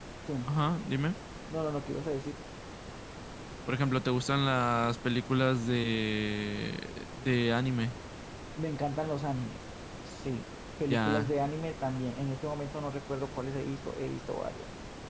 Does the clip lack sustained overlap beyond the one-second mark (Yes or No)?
Yes